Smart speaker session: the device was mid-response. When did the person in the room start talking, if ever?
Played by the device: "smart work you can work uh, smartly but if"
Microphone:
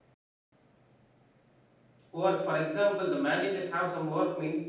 2.1 s

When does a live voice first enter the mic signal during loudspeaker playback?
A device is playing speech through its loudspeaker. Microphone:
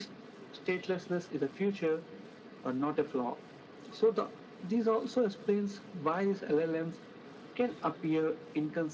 none

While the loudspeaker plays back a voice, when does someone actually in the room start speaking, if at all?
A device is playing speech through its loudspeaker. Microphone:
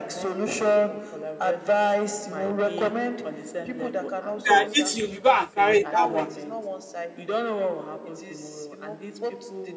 4.5 s

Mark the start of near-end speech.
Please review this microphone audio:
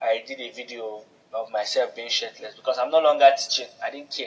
none

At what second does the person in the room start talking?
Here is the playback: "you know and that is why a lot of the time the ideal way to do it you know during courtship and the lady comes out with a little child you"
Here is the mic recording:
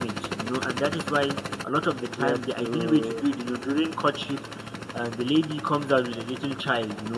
2.1 s

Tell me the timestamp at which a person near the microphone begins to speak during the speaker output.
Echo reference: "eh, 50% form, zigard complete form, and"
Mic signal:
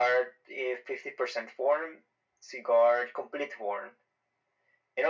none

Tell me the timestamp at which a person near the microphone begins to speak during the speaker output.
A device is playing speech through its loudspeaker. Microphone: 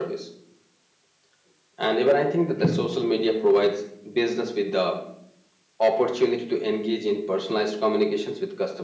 none

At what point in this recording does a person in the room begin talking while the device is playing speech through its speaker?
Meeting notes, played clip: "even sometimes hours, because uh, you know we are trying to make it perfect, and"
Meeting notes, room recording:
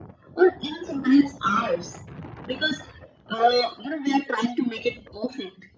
none

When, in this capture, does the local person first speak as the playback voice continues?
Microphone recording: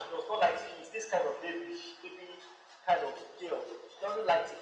none

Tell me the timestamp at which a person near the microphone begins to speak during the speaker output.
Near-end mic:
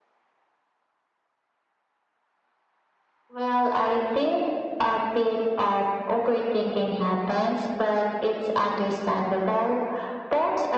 none

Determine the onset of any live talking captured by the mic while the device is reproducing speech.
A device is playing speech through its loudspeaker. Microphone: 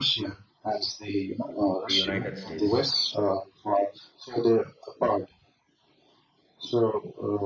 1.3 s

